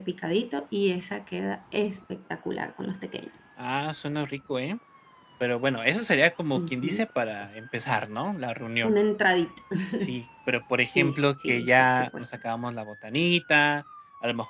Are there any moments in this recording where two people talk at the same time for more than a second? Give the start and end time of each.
10.8-12.1

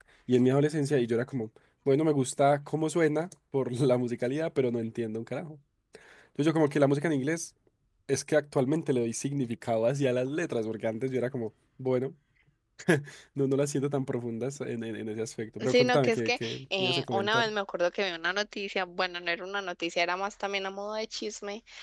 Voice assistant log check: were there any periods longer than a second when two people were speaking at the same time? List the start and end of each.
15.7-17.5

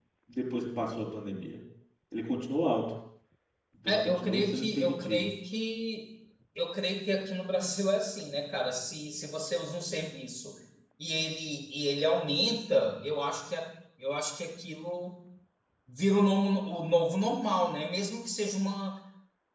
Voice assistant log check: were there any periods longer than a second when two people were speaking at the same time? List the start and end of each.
3.9-5.3

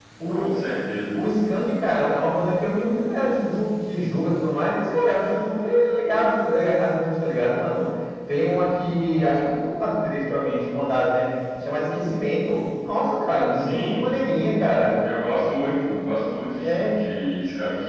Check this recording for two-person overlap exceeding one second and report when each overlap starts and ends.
none

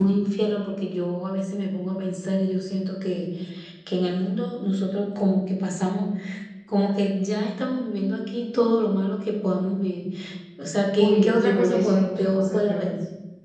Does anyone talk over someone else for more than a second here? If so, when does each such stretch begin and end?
11.0-12.9

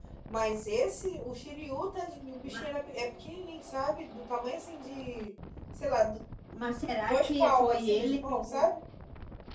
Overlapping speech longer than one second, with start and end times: 7.1-8.6

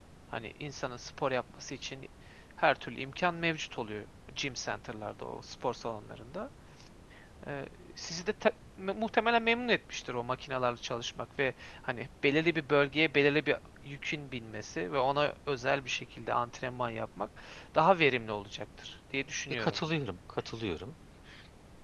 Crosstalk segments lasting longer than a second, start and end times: none

